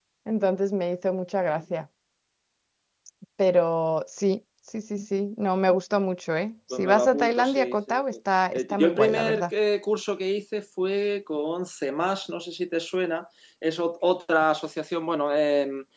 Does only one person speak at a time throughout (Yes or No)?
No